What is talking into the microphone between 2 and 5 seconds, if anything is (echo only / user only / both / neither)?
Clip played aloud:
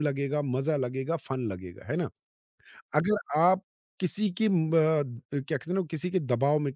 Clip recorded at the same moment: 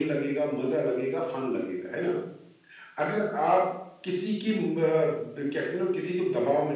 echo only